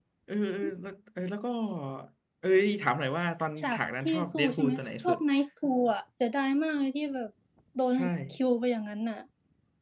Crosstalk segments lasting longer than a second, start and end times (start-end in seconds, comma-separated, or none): 3.6-5.2